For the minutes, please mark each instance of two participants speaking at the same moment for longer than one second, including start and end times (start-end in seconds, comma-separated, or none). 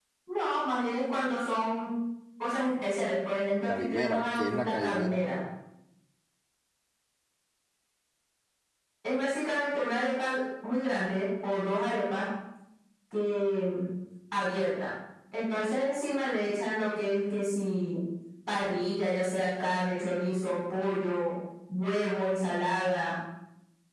3.7-5.2